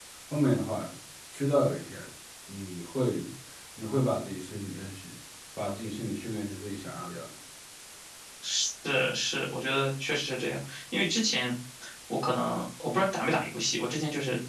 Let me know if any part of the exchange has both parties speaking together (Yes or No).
No